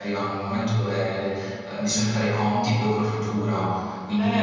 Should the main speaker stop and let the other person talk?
Yes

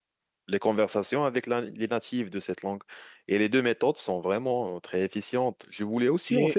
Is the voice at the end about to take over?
No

